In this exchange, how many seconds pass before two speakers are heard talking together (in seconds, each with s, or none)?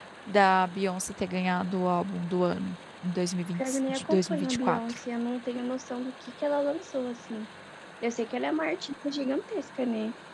3.5 s